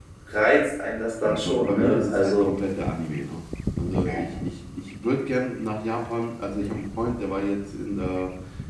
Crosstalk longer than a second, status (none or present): present